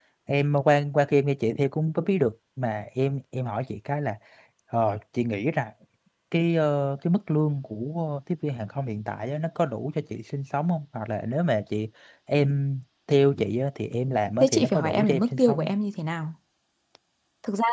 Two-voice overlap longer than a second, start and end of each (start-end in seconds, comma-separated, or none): 14.4-15.7